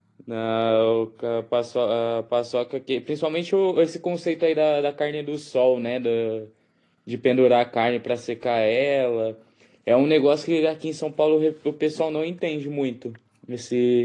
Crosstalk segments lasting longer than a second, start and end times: none

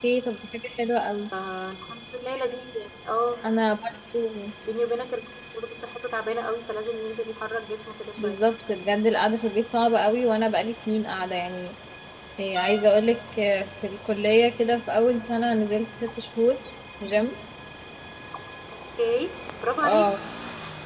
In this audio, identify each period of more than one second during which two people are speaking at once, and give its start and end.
none

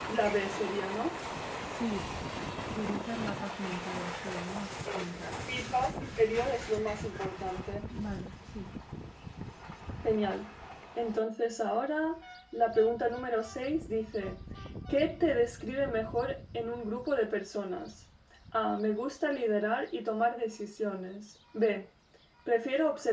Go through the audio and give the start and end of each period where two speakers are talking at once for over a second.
none

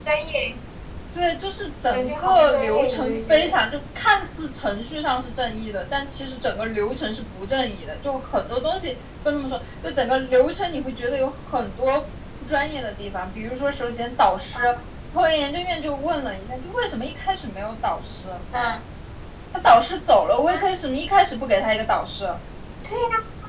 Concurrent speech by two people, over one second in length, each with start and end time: 1.9-3.6

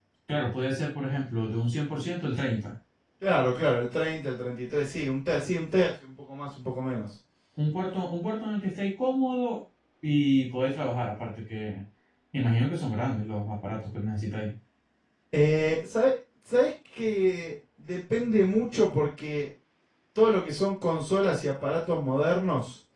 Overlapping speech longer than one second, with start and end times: none

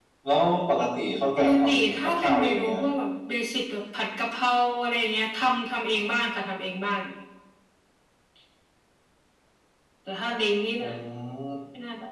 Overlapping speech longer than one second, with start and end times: 1.4-2.8

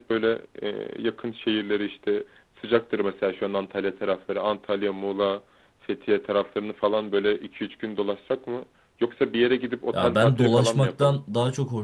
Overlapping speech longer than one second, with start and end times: 9.9-11.2

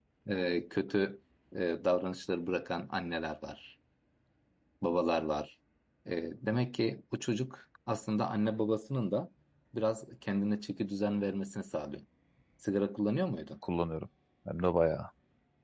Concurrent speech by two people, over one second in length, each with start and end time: none

